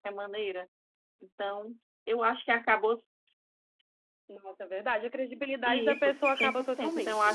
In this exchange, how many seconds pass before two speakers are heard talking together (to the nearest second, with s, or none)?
6 s